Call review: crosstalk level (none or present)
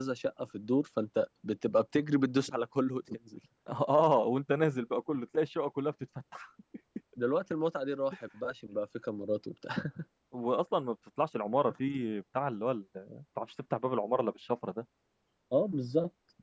none